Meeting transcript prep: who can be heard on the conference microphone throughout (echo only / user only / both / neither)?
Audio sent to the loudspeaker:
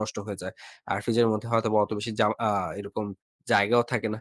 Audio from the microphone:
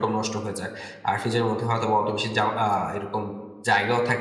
echo only